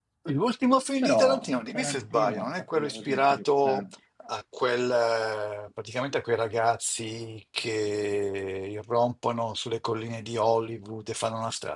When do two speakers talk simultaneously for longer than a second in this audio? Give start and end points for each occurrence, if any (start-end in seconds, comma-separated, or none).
1.0-3.8